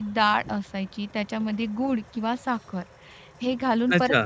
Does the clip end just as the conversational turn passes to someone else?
No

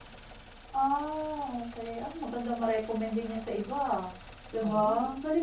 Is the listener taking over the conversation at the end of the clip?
No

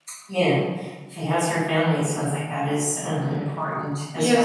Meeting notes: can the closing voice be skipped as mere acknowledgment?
No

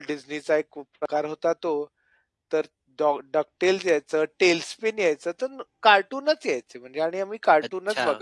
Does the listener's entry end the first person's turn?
No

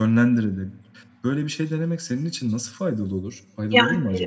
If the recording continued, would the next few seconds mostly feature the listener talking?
Yes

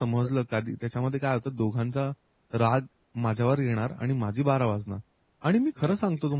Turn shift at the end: No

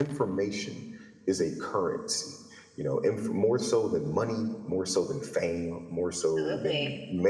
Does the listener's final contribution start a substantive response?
No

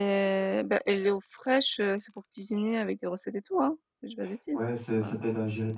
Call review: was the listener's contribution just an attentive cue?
No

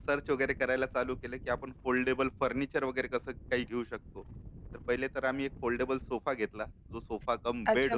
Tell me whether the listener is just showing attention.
No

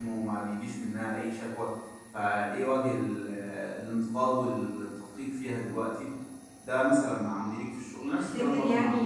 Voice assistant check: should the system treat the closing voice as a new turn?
Yes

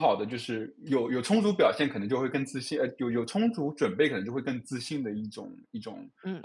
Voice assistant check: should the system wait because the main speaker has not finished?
No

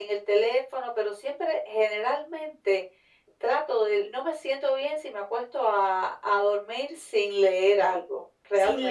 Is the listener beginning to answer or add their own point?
Yes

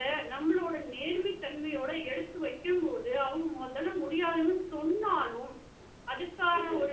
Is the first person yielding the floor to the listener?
No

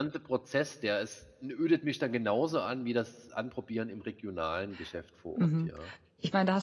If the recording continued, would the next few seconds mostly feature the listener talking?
Yes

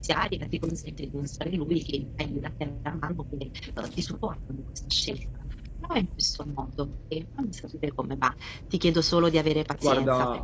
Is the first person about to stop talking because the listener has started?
No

